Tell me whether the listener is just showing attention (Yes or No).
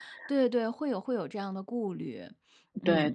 No